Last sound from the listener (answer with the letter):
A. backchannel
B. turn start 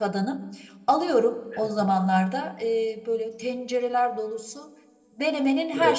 A